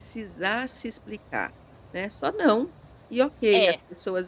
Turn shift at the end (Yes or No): No